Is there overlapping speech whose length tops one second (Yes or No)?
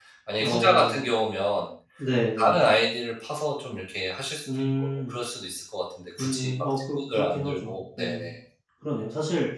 Yes